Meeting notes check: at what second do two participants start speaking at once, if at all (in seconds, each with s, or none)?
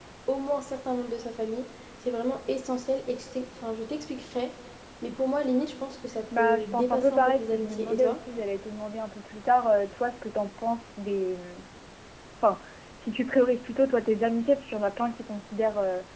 6.3 s